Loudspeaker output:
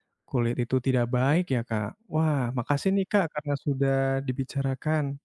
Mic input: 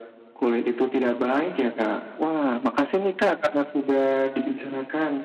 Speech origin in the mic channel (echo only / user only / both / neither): echo only